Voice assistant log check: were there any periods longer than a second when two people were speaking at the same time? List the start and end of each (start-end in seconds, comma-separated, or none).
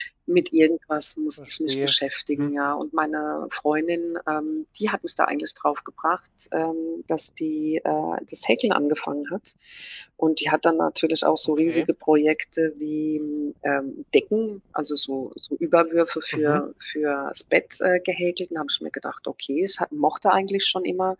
none